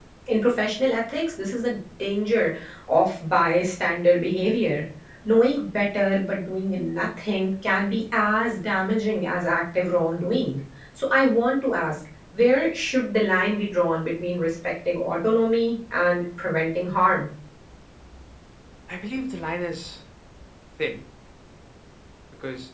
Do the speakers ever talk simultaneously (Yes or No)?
No